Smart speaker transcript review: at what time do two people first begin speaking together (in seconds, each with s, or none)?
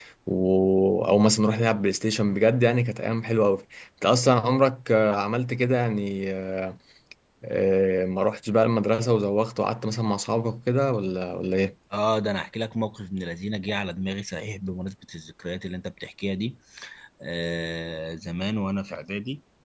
none